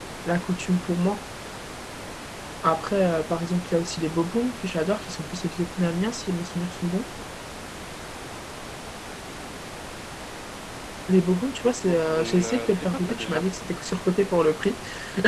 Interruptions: present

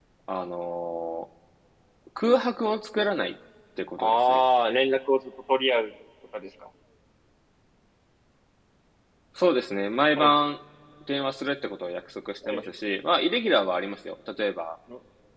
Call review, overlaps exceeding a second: none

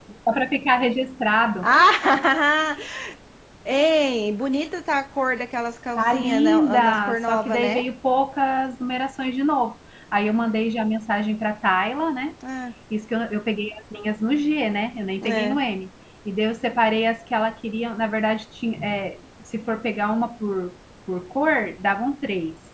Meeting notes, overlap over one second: present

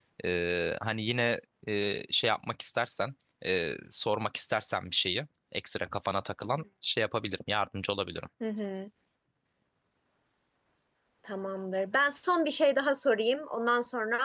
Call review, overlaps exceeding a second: none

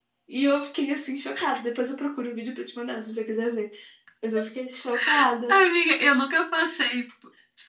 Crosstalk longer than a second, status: none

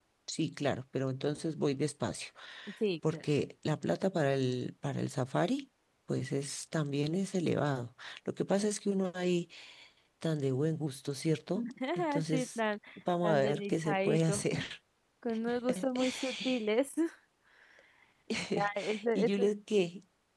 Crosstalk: present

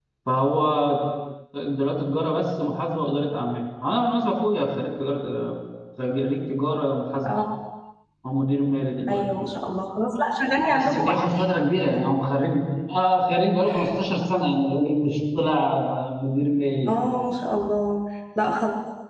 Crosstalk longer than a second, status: none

